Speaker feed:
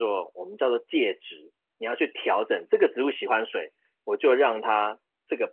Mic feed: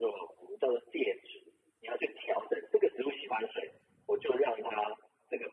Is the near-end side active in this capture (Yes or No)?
No